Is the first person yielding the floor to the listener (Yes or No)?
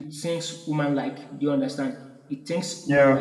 No